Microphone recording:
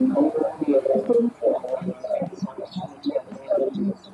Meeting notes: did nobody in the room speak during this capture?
Yes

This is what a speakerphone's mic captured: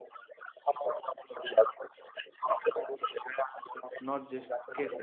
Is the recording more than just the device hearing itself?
Yes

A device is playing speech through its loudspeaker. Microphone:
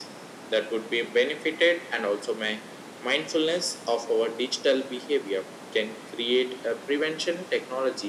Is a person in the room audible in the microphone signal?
No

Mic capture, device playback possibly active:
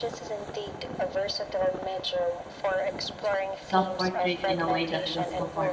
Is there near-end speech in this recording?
Yes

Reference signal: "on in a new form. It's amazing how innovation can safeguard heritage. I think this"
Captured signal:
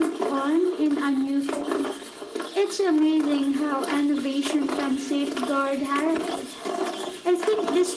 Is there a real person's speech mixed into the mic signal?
No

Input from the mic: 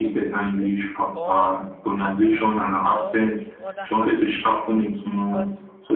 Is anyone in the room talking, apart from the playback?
Yes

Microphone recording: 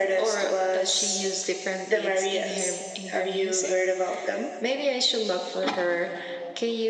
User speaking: No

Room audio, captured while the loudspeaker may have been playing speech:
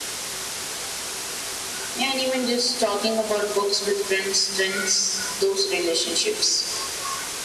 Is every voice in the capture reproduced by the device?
Yes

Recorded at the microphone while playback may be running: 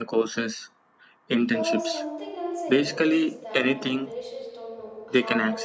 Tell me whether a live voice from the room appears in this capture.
Yes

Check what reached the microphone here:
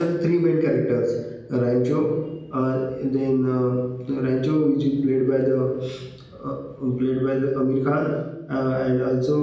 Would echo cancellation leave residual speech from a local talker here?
Yes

